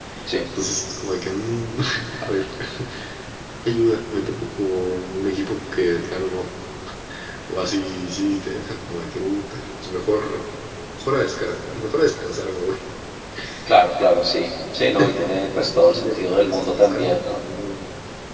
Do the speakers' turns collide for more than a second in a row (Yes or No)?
Yes